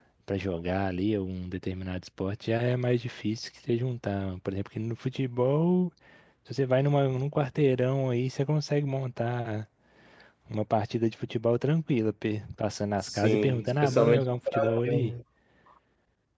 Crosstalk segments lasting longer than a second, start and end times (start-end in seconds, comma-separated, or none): 13.0-15.1